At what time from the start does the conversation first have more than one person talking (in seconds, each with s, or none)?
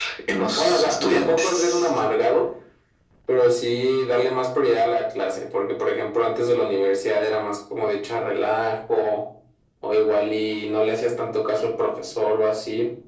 0.6 s